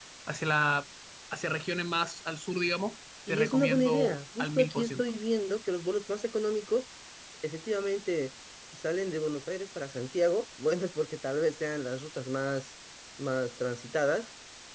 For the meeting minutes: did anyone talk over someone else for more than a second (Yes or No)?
Yes